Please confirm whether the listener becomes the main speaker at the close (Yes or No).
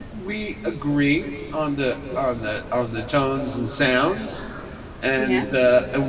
No